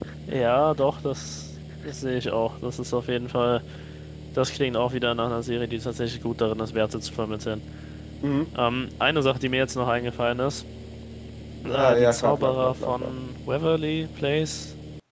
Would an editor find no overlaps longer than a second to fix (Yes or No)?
No